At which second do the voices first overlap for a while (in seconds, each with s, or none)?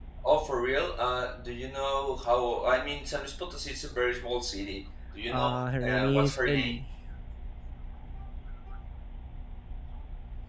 5.3 s